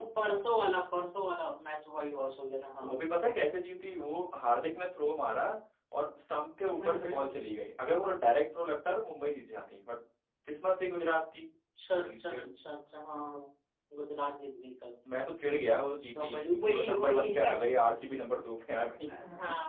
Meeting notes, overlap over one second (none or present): present